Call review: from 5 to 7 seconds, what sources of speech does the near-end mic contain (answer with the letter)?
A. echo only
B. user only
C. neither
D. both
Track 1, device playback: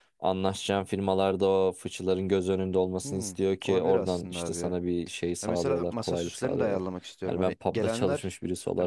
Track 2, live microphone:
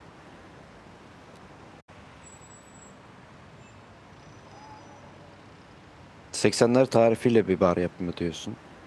B